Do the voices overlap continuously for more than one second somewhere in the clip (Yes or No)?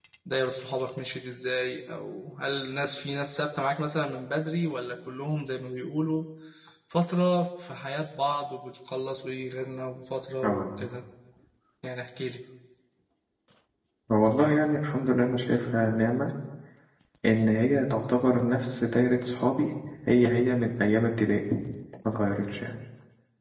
No